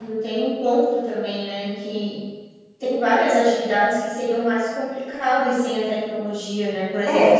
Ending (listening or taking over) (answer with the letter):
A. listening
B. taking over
A